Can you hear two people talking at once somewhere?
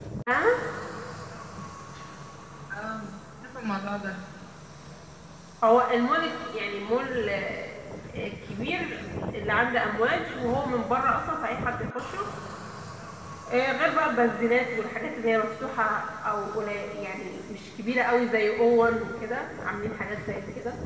No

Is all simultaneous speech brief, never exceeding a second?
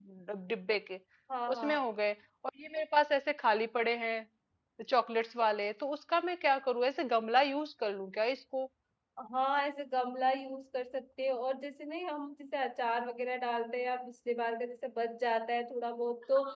Yes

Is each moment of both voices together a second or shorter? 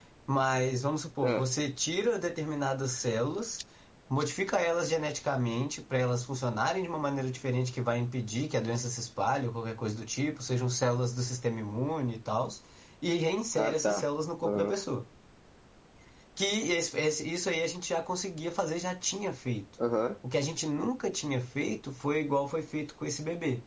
Yes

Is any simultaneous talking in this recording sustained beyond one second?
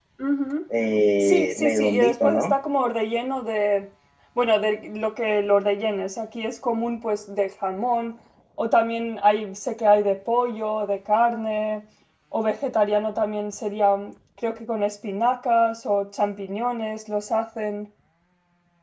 Yes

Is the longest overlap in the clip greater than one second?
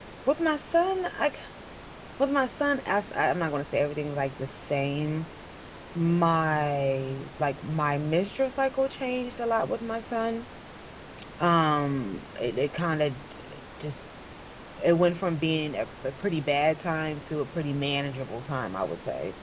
No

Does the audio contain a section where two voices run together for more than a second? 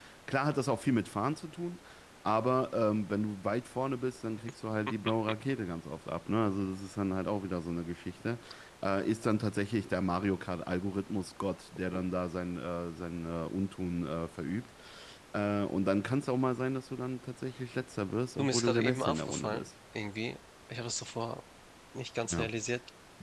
Yes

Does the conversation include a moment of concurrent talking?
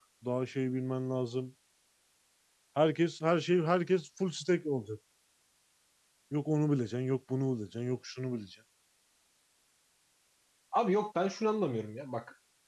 No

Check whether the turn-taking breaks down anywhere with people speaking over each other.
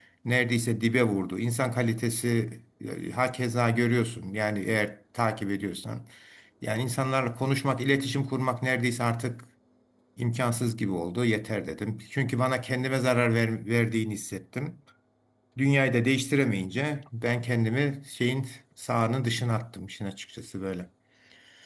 No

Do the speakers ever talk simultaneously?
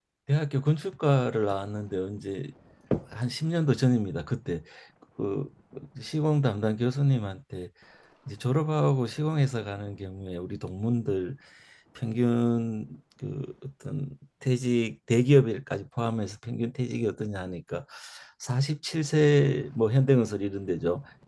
No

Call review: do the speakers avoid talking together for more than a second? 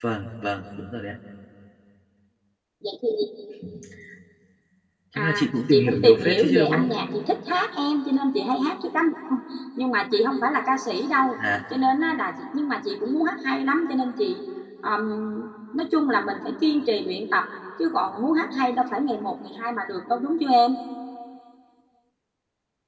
No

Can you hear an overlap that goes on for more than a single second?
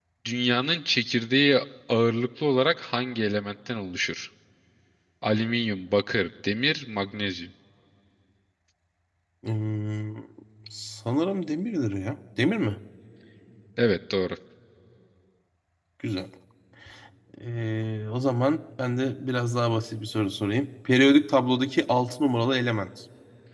No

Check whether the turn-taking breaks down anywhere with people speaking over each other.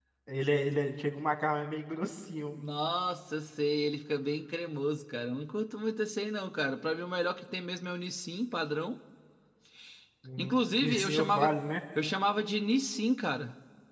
Yes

